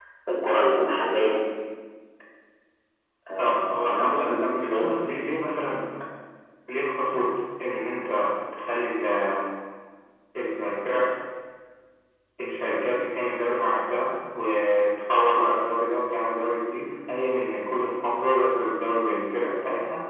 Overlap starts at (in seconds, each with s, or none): 3.4 s